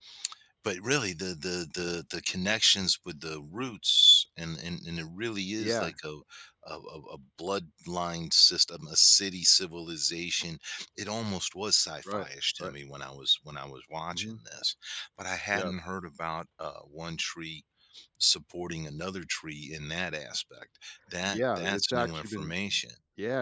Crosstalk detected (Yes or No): Yes